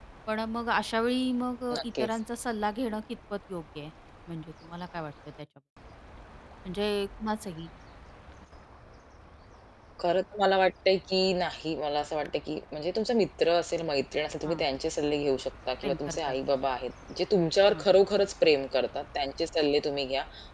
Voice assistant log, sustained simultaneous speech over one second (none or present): none